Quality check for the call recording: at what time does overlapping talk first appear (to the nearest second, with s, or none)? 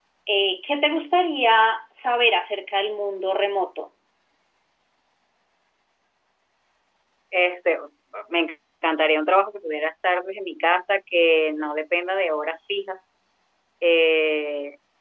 none